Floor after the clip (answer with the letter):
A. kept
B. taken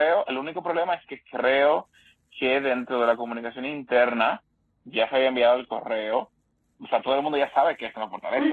B